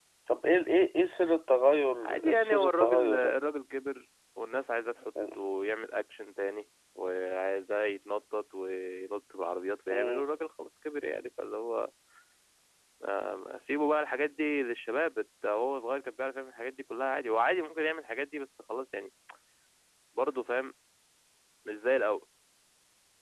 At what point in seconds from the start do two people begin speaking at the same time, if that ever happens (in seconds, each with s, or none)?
2.0 s